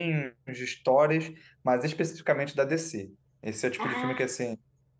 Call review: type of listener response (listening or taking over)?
listening